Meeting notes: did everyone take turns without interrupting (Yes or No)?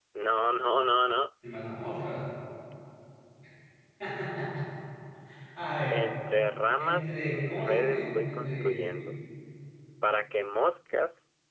No